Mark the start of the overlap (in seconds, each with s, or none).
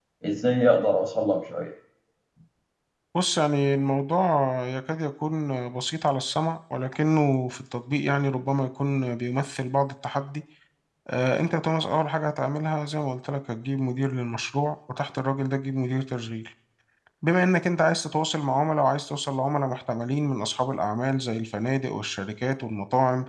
none